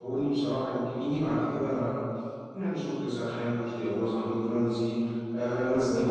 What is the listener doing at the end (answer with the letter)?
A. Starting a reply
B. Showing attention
B